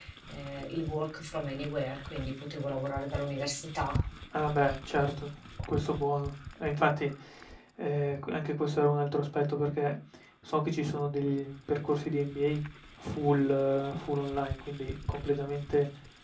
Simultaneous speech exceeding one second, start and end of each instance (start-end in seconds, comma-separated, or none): none